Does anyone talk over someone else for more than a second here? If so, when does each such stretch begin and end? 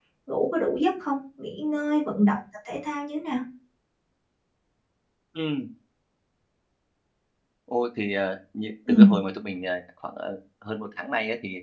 none

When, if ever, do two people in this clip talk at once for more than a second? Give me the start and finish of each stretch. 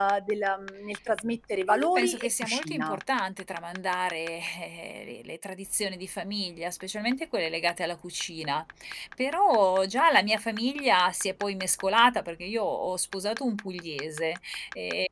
1.7-3.0

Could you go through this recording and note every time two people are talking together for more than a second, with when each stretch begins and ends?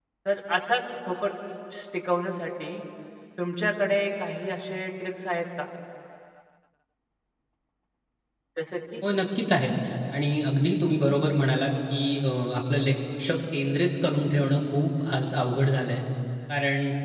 none

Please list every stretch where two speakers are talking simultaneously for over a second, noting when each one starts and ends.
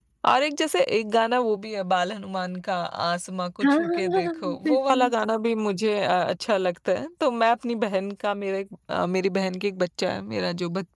3.6-5.1

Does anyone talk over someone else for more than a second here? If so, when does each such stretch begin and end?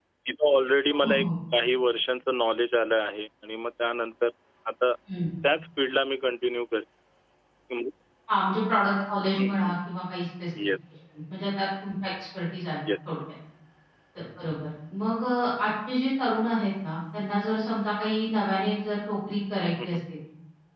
none

